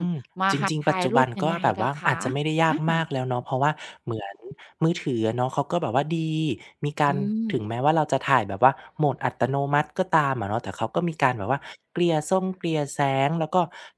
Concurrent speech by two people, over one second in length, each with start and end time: 0.5-2.2

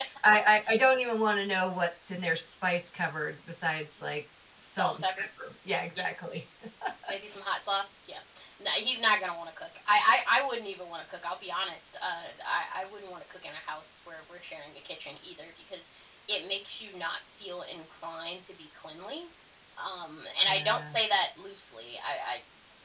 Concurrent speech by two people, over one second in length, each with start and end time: none

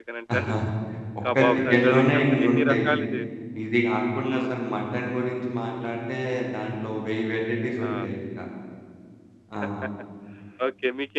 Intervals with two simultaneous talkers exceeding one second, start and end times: 1.4-2.9

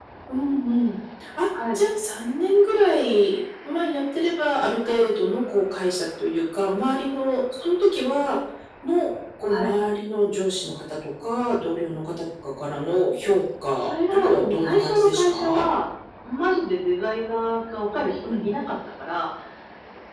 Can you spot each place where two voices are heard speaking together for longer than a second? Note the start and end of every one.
13.9-15.7

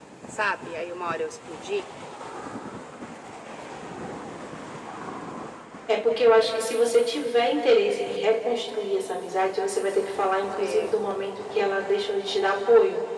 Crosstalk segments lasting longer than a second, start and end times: none

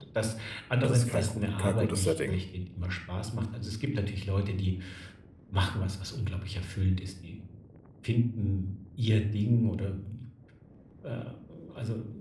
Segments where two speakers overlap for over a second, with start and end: 0.8-2.4

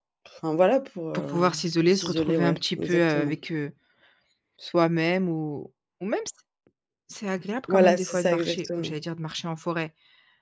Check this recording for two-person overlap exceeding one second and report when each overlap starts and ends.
1.1-3.4, 7.7-8.9

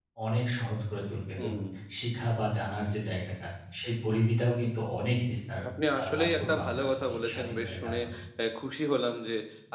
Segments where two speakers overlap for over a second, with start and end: 6.0-8.0

